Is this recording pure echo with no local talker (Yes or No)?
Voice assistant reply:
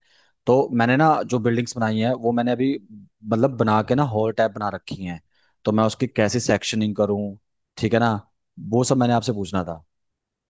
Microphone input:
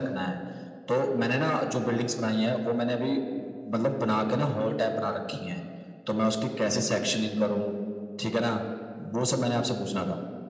Yes